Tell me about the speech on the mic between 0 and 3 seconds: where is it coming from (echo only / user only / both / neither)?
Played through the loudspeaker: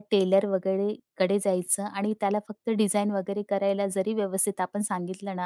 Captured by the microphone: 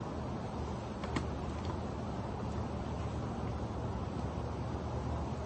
neither